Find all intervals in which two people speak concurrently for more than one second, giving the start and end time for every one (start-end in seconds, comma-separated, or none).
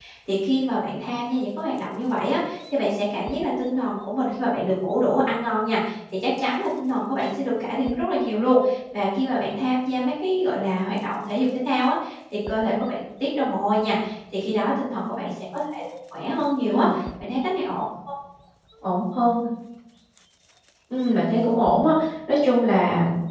none